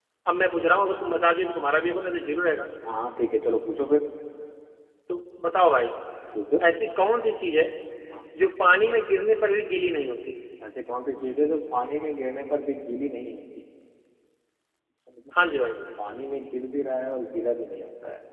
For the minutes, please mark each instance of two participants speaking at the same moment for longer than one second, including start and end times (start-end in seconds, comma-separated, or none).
none